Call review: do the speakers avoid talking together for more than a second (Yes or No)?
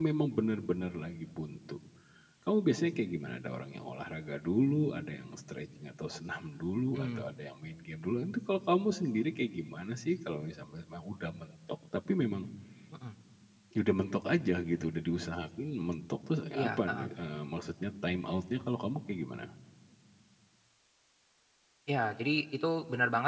Yes